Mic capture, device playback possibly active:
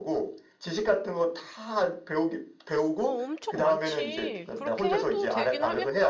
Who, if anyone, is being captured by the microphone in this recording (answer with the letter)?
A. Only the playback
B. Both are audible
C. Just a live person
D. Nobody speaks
B